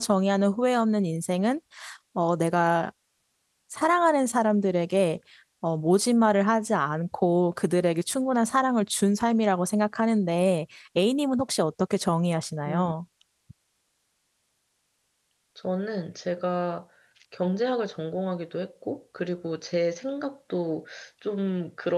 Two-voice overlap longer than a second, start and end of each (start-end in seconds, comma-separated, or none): none